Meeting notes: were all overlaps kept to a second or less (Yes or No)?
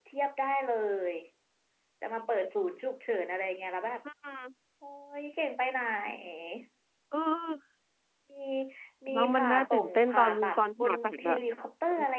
No